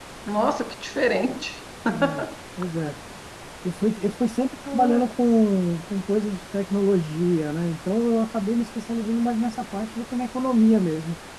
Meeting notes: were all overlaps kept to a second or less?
Yes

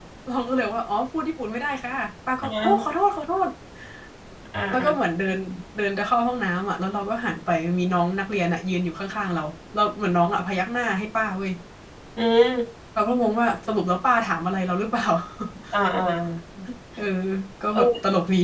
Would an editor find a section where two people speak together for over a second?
No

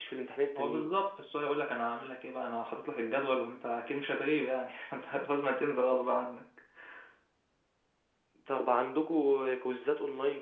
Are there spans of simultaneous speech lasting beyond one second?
No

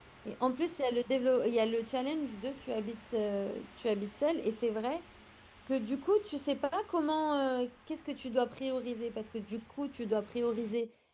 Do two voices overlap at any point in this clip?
No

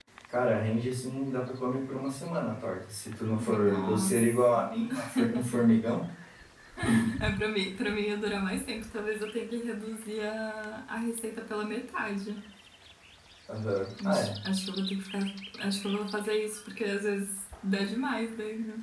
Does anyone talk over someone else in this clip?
Yes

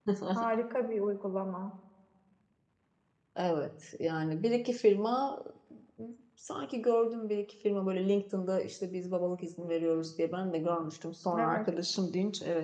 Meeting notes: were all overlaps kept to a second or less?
Yes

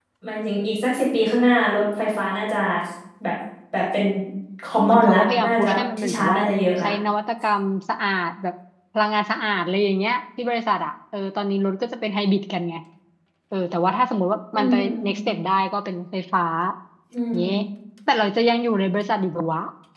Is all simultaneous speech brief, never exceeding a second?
No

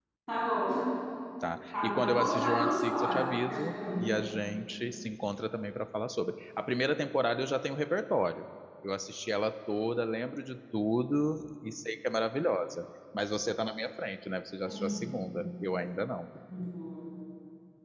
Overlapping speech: Yes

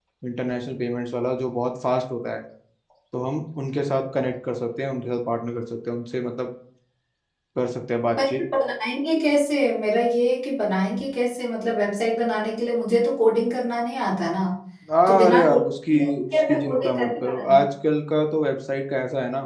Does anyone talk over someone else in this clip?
Yes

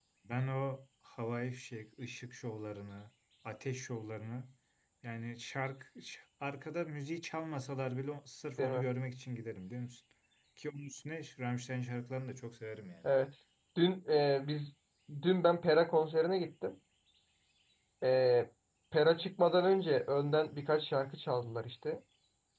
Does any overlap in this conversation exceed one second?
No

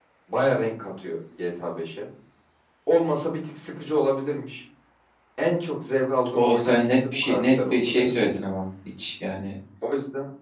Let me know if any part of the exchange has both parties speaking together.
Yes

